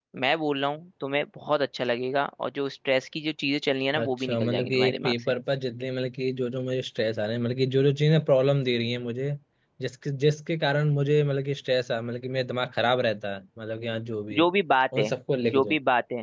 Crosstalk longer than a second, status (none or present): present